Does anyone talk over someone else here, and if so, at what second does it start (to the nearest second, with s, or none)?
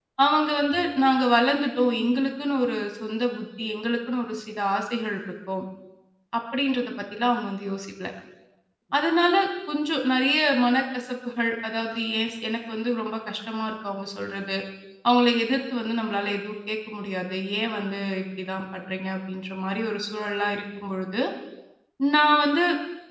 none